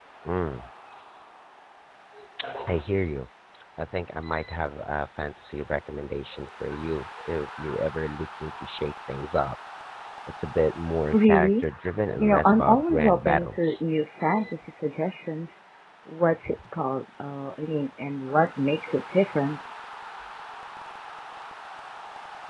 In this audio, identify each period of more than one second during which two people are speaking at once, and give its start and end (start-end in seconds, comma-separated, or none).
12.2-13.8